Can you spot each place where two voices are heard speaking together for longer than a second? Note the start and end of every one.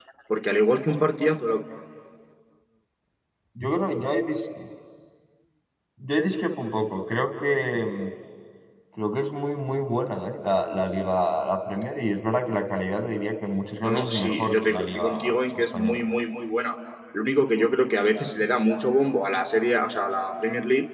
13.8-15.1

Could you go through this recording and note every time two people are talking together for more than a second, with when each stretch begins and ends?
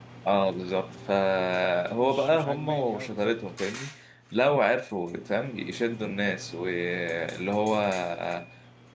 2.0-3.3

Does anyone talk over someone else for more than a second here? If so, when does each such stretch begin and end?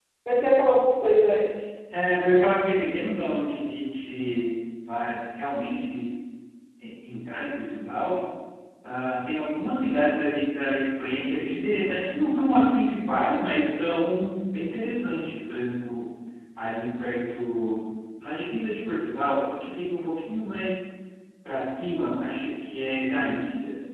none

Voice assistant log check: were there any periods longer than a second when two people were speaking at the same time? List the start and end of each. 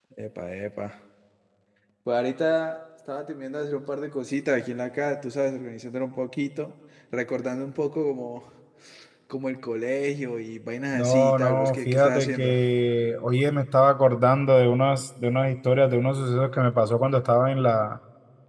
10.9-12.5

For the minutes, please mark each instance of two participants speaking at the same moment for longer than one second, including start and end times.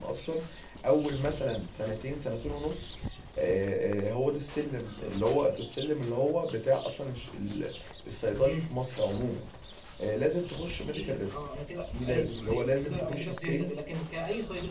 11.9-13.8

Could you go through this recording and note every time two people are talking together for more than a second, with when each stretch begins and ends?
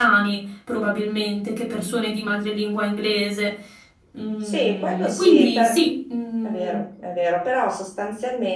4.4-5.8

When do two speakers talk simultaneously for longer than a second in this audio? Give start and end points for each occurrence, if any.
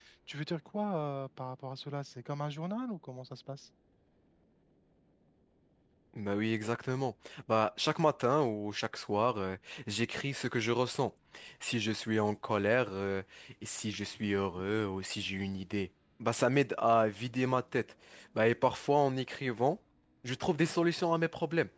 none

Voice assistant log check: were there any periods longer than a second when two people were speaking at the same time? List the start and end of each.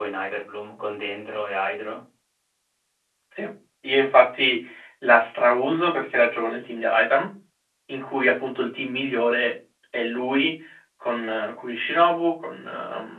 none

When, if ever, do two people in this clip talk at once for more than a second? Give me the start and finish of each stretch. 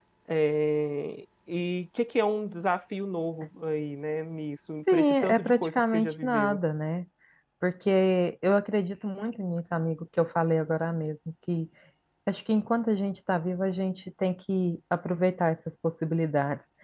4.9-6.6

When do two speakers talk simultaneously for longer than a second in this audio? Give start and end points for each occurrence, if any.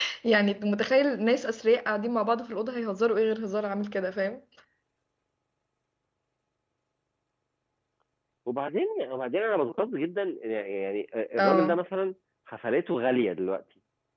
none

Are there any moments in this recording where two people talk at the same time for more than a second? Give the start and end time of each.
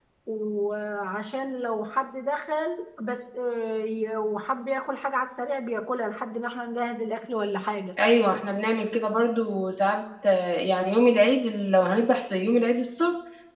none

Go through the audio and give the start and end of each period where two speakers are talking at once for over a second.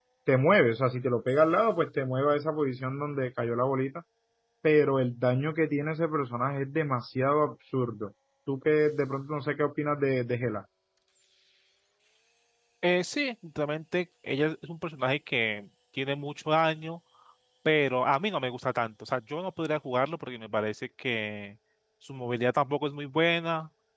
none

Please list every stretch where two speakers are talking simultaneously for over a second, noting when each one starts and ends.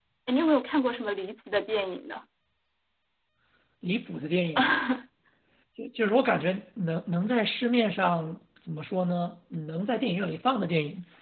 none

